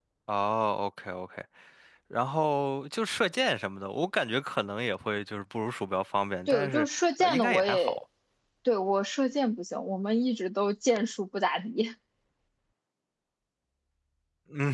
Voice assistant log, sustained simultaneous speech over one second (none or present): present